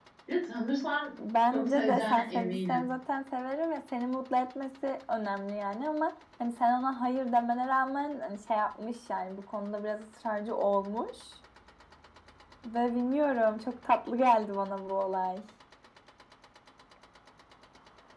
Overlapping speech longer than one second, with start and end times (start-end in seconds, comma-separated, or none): 1.5-2.8